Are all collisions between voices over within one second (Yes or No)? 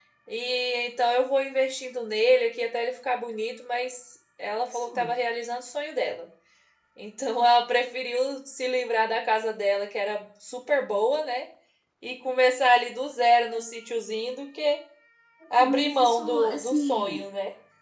No